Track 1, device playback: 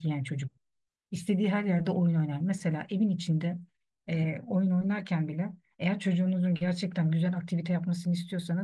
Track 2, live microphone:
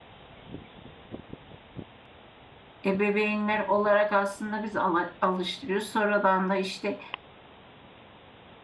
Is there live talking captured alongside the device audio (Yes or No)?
Yes